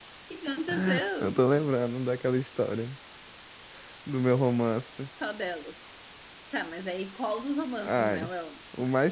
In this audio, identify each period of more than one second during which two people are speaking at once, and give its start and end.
none

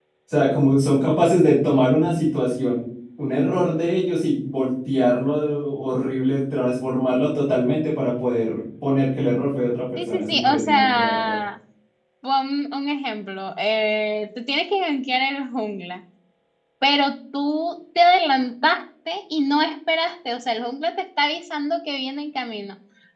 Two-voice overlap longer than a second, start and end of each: 10.1-11.4

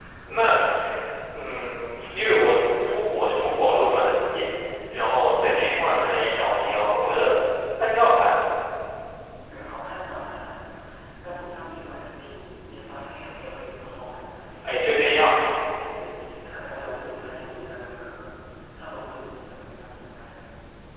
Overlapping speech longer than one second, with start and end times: none

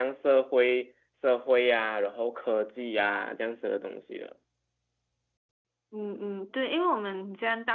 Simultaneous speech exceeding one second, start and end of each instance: none

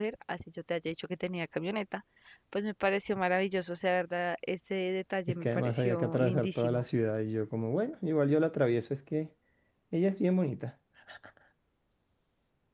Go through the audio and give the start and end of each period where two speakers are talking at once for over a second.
5.3-6.8

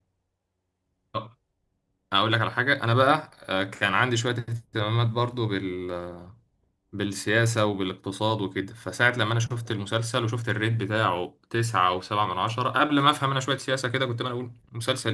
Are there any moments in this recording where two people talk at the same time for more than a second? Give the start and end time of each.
none

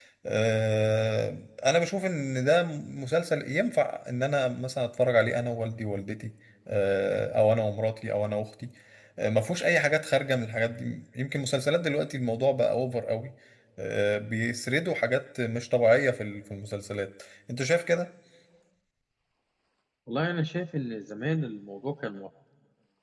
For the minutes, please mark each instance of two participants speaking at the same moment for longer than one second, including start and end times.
none

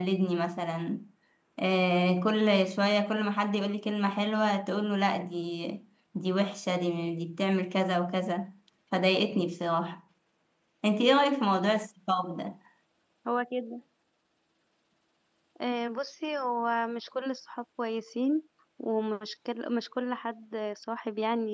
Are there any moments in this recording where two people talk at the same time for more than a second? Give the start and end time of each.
none

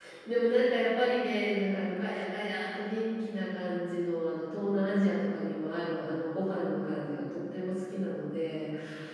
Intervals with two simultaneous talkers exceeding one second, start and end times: none

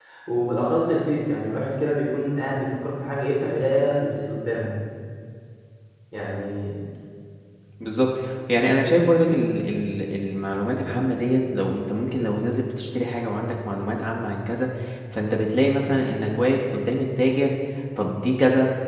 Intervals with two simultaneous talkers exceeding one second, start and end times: none

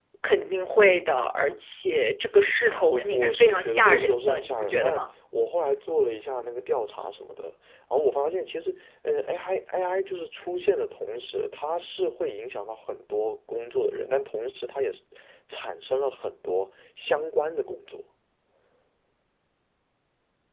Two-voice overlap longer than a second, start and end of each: 2.9-5.0

